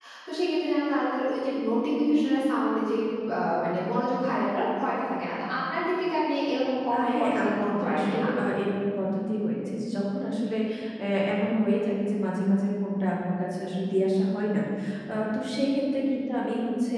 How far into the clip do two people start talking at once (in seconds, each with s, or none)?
6.9 s